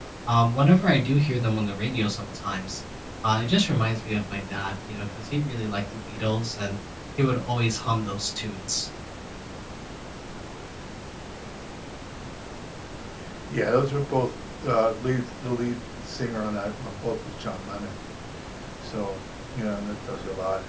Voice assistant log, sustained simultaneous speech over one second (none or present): none